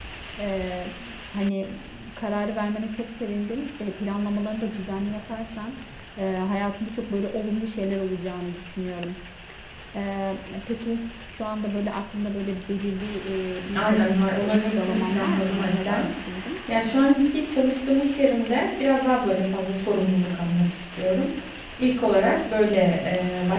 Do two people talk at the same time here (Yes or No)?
Yes